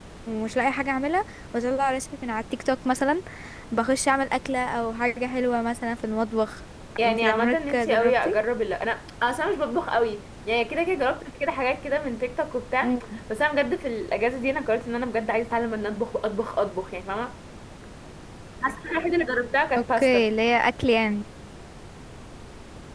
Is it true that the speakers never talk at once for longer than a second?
No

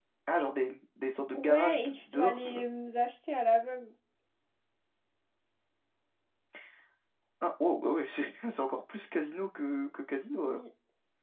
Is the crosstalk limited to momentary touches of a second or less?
No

